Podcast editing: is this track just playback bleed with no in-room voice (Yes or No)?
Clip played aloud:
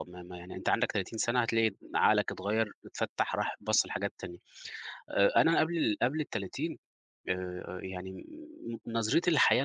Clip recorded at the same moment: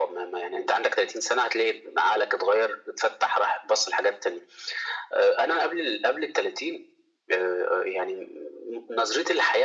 Yes